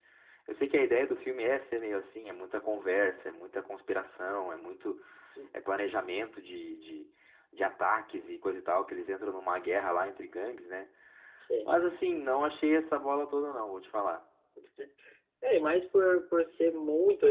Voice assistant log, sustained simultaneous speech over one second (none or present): none